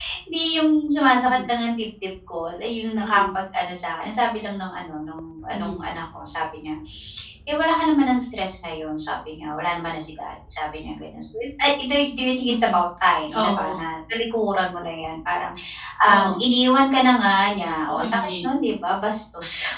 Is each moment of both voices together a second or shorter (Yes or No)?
Yes